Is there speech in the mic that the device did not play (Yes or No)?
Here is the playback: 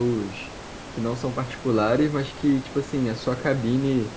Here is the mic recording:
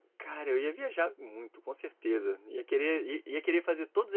Yes